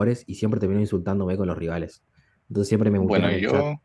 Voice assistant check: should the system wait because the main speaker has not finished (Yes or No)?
Yes